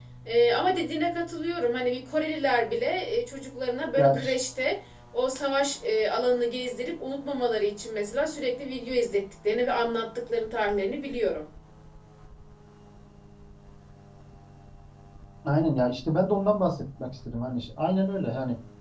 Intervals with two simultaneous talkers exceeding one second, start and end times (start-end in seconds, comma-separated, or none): none